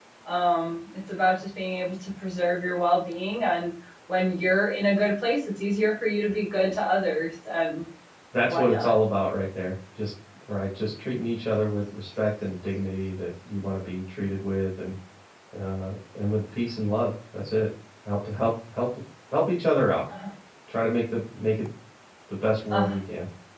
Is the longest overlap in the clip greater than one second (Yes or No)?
No